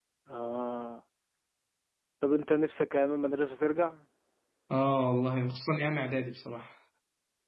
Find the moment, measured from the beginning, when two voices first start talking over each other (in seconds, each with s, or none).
none